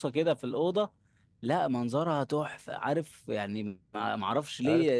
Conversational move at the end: taking over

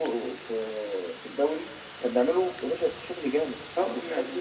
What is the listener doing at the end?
taking over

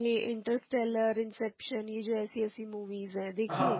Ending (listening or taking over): taking over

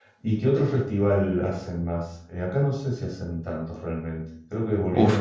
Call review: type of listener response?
taking over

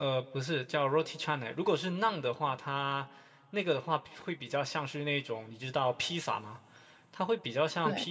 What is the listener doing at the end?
listening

